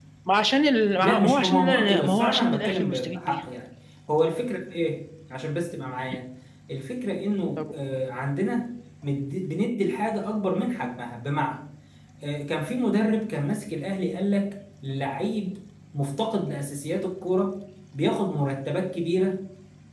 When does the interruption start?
1.0 s

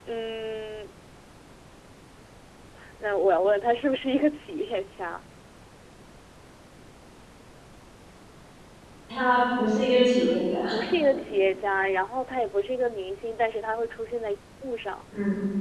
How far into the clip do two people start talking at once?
none

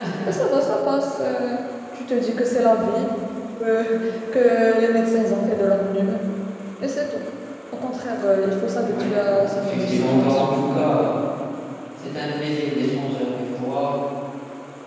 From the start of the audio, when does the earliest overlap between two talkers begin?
8.8 s

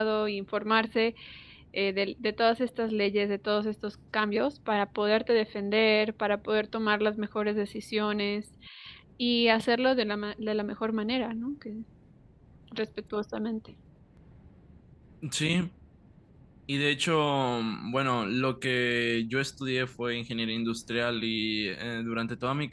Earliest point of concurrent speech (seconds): none

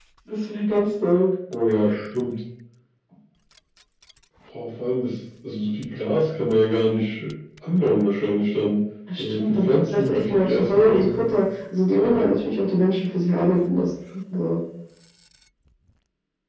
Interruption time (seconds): 9.2 s

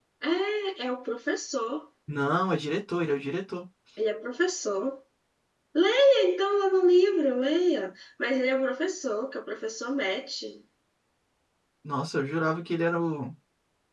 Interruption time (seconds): none

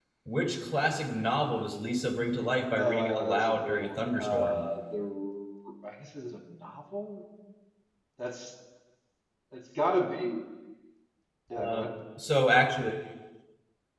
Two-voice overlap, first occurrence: 2.7 s

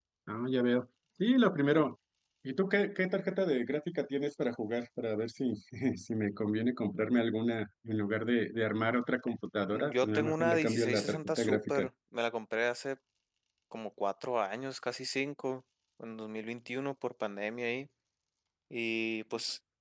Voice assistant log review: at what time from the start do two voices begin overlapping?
9.6 s

